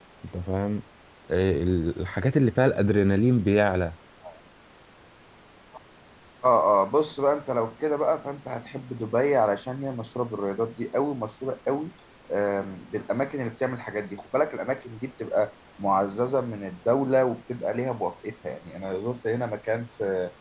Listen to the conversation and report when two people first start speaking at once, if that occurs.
none

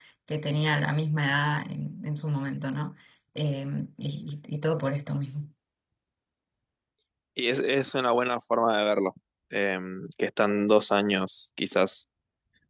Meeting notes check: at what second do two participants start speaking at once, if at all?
none

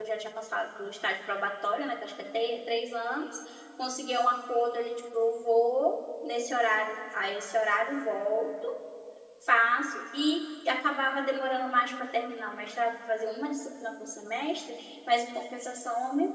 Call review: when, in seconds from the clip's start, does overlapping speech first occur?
none

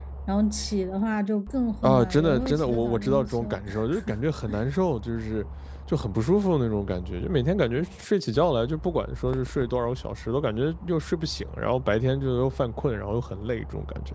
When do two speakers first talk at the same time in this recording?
1.8 s

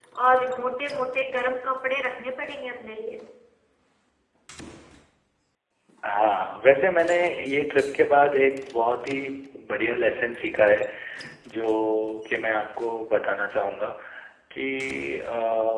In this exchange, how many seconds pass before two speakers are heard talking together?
none

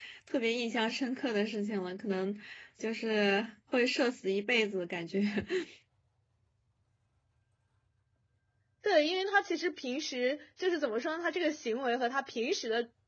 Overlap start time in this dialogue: none

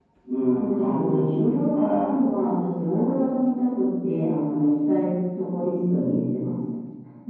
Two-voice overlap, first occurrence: 0.5 s

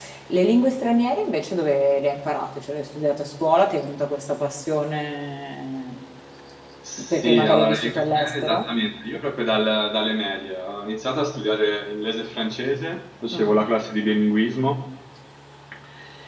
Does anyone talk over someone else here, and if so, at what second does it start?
7.1 s

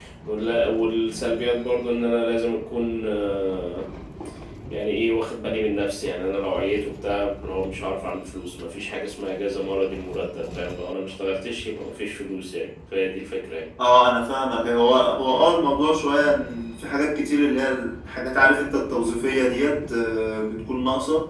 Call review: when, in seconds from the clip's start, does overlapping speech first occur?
none

